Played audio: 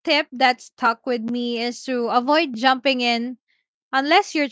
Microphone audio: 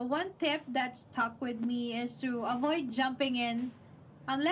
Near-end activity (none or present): none